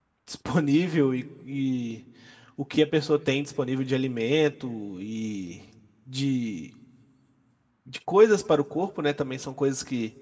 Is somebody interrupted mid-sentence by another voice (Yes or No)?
No